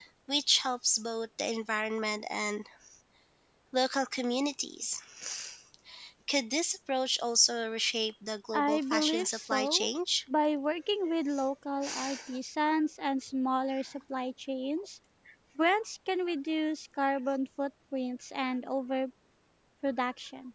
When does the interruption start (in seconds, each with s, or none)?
8.5 s